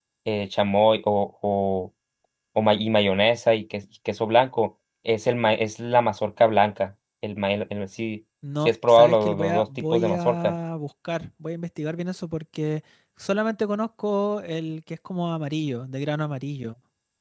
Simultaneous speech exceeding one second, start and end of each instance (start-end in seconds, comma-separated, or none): 8.6-10.5